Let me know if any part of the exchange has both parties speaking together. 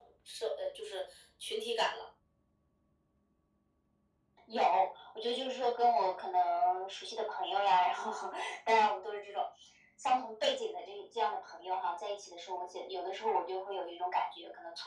No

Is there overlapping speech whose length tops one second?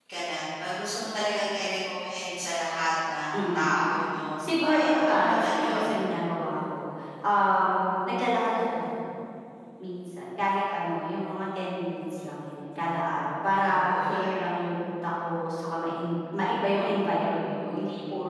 Yes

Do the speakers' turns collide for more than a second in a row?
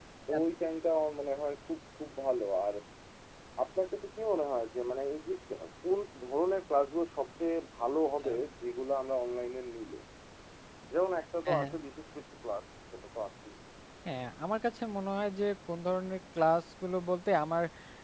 No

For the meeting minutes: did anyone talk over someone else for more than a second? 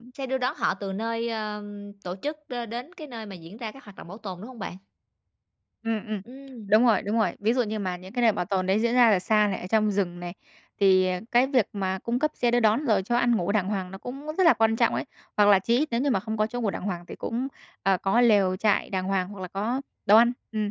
No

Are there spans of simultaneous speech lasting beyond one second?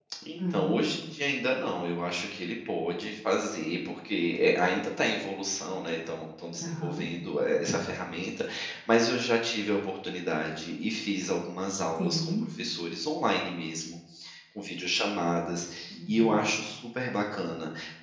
No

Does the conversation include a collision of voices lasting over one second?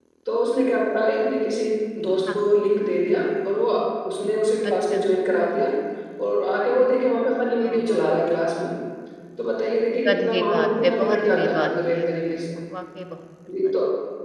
Yes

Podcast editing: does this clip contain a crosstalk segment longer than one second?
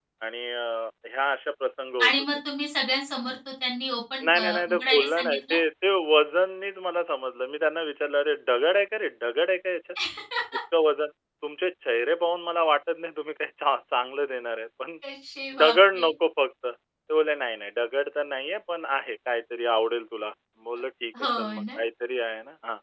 Yes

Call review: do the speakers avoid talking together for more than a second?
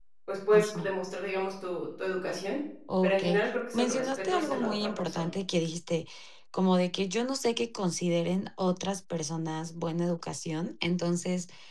No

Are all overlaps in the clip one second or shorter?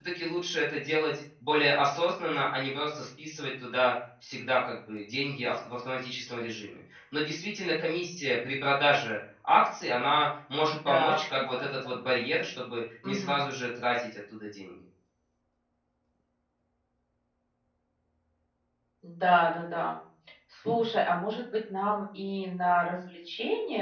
No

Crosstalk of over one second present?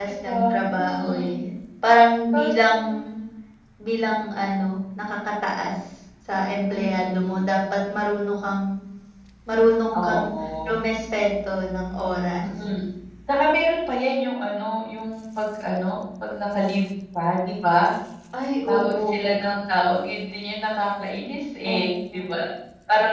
Yes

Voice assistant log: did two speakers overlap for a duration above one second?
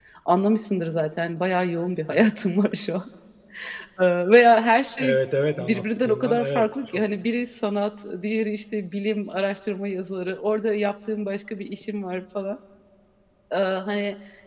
Yes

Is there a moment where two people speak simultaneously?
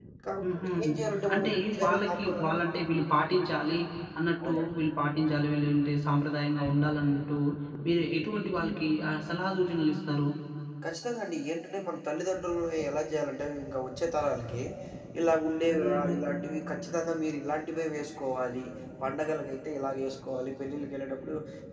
Yes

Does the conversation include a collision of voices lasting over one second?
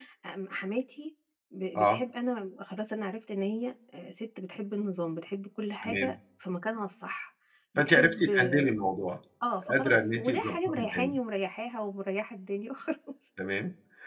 Yes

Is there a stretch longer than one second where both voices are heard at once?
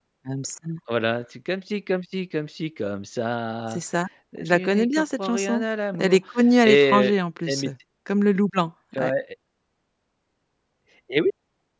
Yes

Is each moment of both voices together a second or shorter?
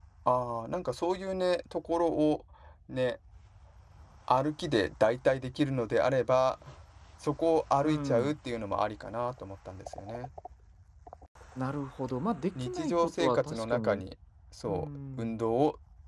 No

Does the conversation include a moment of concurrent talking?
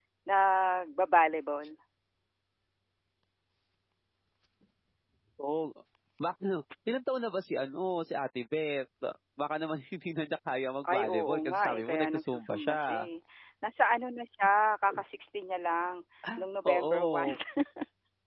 Yes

